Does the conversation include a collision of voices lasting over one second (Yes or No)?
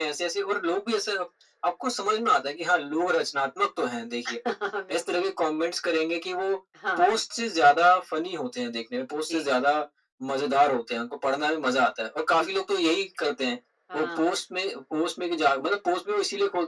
No